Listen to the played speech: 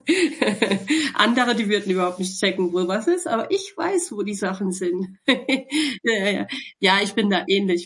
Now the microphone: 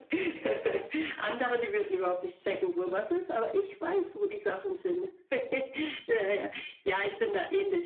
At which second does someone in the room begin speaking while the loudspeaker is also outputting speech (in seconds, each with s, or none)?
none